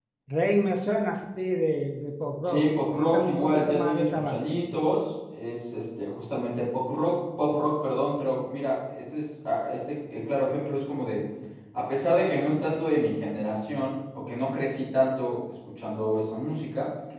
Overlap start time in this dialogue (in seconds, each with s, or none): 2.4 s